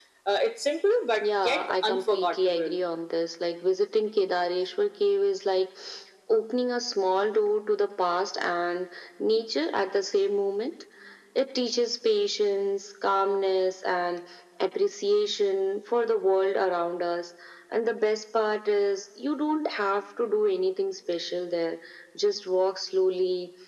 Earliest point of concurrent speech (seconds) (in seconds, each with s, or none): 1.2 s